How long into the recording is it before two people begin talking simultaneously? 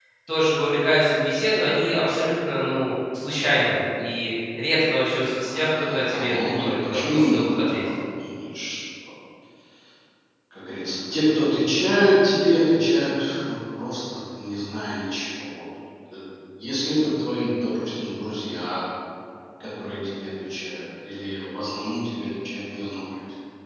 5.4 s

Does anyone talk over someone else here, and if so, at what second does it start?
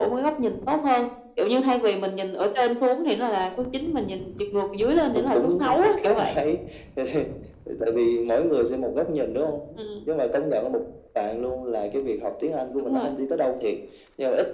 5.0 s

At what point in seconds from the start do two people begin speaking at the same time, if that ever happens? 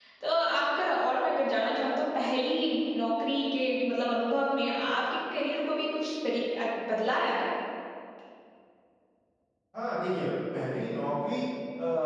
none

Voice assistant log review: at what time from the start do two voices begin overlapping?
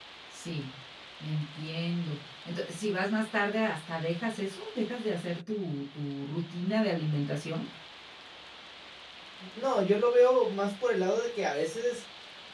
none

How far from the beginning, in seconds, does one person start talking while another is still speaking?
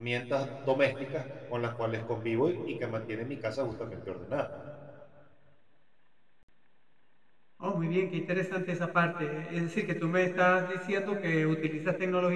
none

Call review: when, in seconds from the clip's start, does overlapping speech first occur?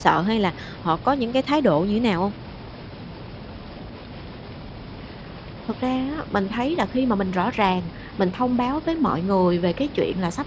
none

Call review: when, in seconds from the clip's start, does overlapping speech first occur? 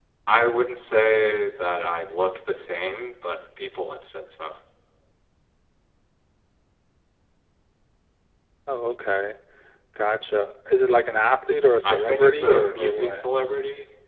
11.8 s

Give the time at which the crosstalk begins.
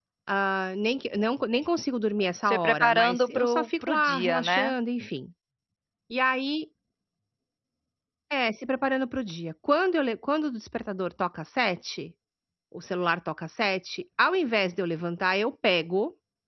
2.4 s

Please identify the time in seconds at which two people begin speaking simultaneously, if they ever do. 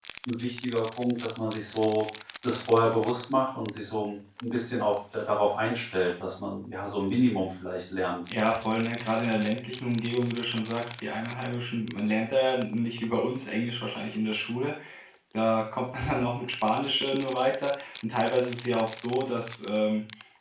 none

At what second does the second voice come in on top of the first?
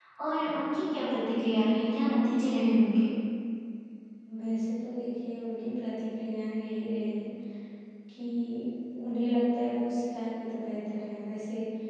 none

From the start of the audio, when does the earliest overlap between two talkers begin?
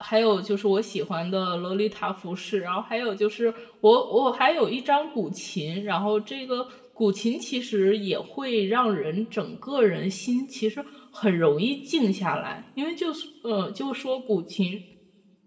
none

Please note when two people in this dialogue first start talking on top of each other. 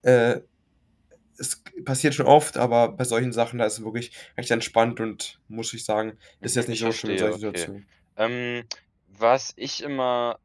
6.4 s

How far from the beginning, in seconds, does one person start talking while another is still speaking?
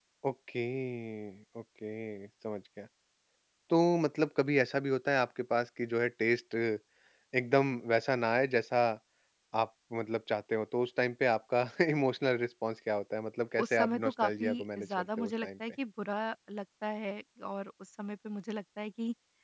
13.6 s

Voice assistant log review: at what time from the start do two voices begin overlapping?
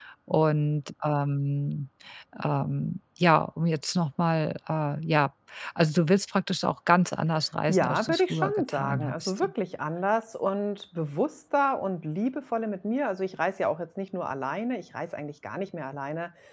7.7 s

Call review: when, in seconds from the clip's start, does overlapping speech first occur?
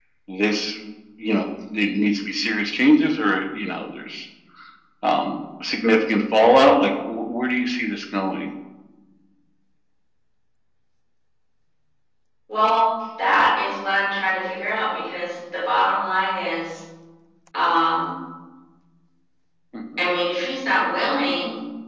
none

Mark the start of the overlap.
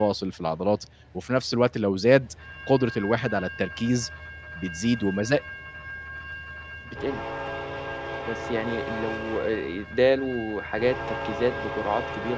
none

